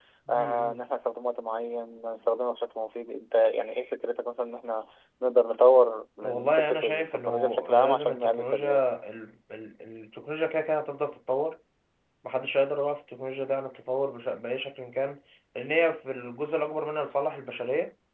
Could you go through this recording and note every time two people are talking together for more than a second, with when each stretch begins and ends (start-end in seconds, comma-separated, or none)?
6.2-8.9